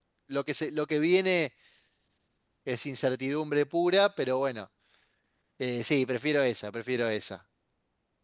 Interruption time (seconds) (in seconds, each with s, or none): none